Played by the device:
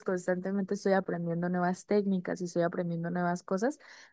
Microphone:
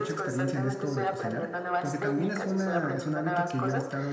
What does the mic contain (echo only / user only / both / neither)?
both